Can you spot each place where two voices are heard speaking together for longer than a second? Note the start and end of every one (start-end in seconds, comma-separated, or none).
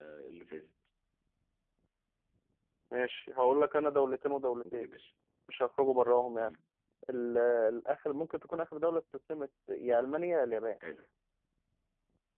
none